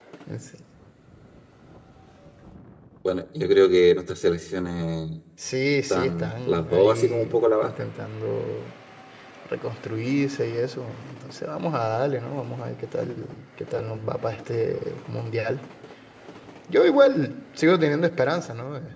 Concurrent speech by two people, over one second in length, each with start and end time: 5.9-7.7

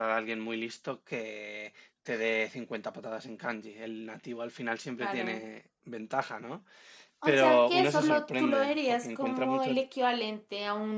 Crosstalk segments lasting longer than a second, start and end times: 7.2-9.8

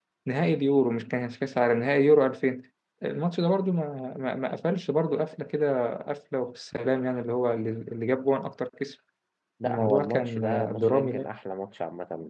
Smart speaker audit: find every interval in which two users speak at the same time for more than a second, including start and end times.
9.6-11.3

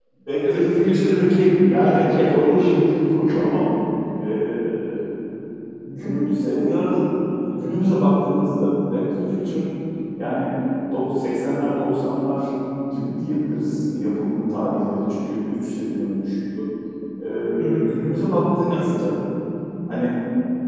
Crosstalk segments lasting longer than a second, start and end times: 0.5-2.7

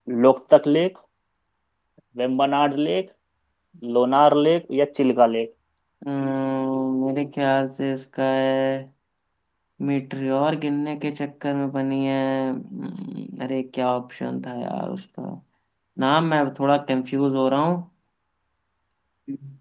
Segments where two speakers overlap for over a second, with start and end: none

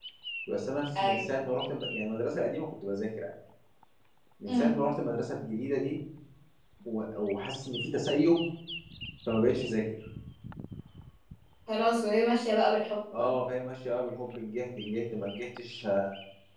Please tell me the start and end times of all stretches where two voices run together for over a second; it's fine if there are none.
none

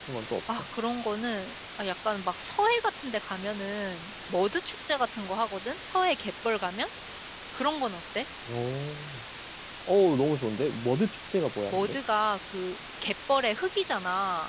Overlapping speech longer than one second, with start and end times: none

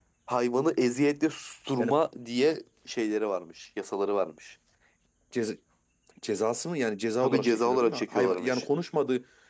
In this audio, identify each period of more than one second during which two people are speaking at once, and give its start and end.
7.2-8.6

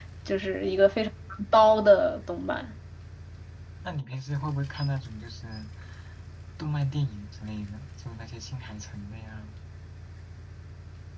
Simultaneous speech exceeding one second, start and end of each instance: none

